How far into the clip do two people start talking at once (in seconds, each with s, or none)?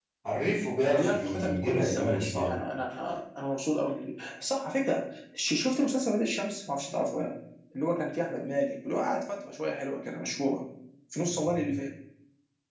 0.9 s